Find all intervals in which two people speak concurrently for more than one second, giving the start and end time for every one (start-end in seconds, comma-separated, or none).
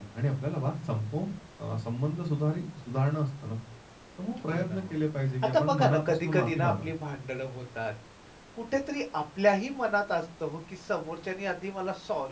5.4-6.8